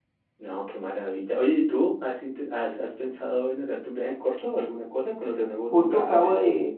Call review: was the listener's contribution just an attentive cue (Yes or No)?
No